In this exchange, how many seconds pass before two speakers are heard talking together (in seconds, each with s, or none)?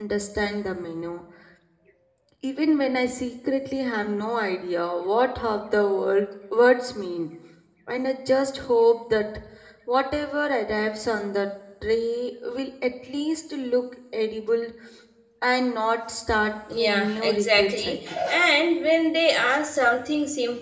16.7 s